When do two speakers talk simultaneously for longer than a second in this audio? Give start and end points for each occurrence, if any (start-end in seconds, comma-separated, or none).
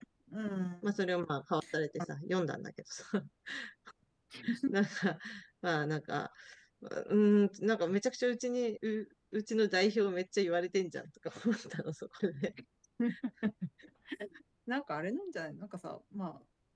none